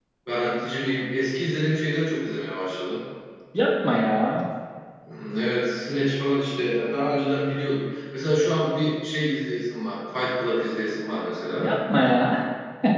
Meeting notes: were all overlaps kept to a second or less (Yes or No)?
Yes